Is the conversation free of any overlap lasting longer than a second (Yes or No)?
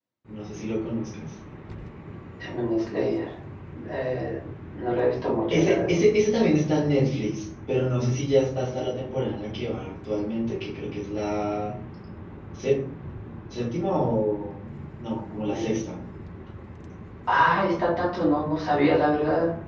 Yes